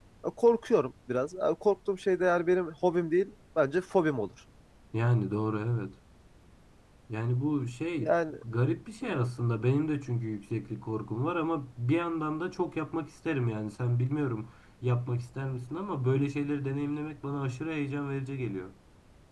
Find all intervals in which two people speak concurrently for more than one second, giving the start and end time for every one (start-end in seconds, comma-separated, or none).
none